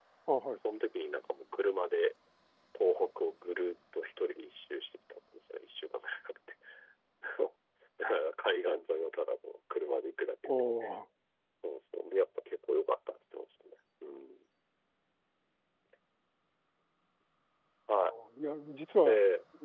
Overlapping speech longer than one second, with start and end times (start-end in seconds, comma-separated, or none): none